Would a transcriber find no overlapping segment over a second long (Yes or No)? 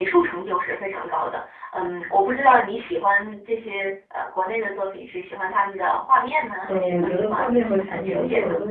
No